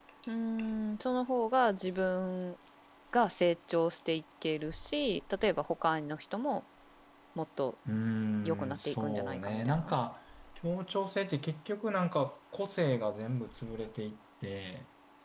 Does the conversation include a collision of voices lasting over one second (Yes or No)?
Yes